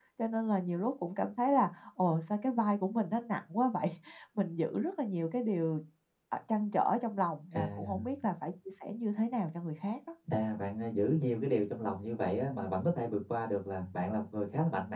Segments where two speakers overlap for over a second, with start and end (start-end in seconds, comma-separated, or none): none